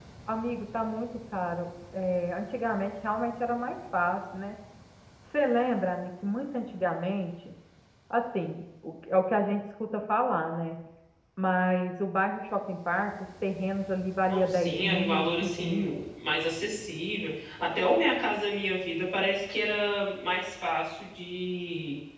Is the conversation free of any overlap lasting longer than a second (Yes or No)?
No